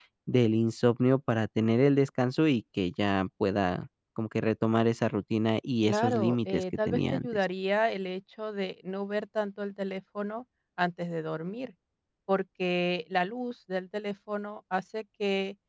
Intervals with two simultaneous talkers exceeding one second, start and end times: 5.8-7.4

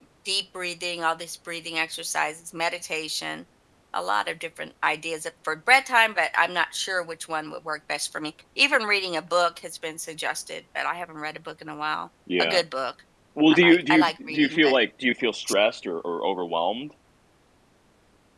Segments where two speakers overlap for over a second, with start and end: 13.5-14.8

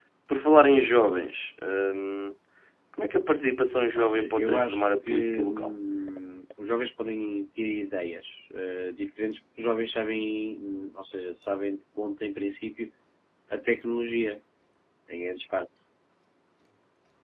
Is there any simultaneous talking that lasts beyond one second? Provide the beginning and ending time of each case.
4.0-5.7

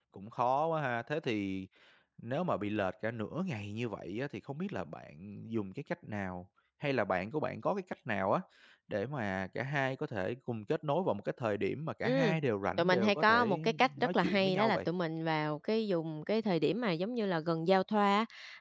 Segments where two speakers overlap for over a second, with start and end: 12.8-14.8

